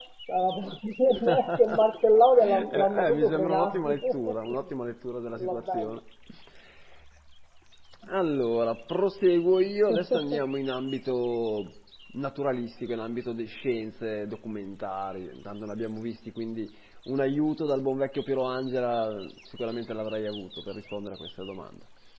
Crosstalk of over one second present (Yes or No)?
Yes